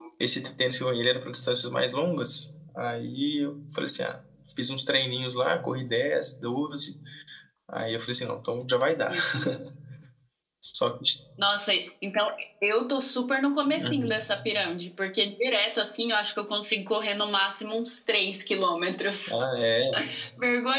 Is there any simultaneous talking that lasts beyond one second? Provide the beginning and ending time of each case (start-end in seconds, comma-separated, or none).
none